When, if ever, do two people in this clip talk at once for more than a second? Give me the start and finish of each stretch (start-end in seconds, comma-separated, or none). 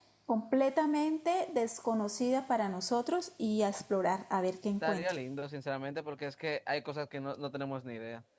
none